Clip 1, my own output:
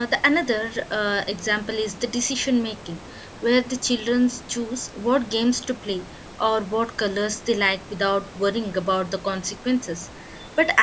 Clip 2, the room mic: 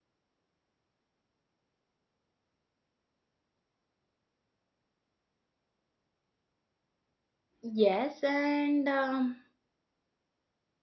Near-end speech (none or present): present